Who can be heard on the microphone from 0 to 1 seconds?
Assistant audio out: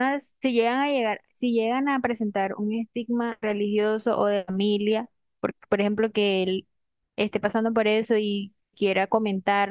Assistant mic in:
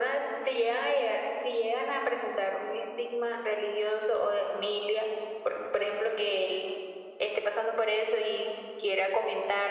echo only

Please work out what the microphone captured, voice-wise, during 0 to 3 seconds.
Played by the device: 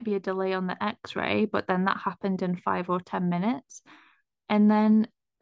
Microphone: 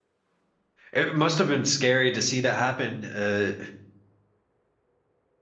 user only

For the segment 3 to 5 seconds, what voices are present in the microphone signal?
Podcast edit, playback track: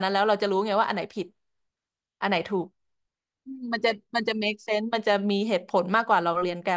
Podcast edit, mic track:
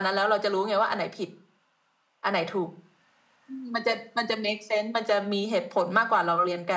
echo only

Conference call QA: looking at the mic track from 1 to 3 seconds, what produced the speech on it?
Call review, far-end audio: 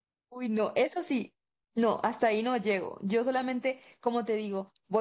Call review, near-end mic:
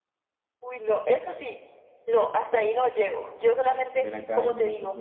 echo only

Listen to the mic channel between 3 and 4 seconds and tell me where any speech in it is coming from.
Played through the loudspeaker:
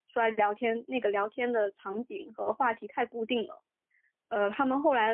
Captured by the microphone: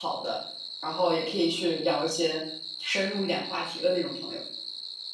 user only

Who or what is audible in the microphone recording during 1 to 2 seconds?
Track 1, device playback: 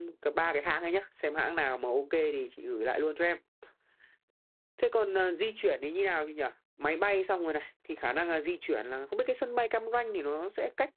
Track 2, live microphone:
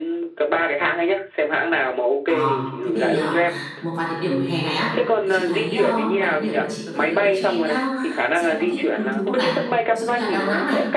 echo only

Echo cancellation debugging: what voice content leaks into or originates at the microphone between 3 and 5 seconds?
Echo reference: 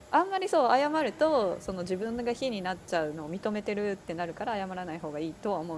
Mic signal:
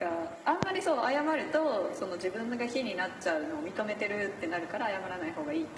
echo only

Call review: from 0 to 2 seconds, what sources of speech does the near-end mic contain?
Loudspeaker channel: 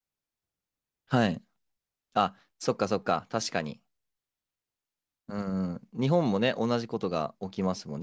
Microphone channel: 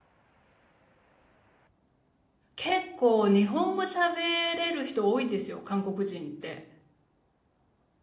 neither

